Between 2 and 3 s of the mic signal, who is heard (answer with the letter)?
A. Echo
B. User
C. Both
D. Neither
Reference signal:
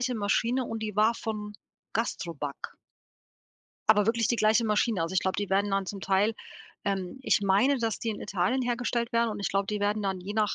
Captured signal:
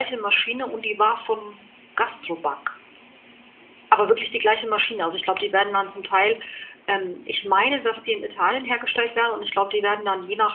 A